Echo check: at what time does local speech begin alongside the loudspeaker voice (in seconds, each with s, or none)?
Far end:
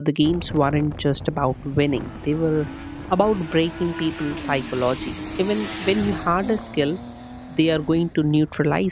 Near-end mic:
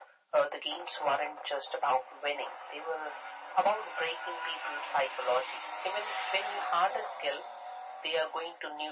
none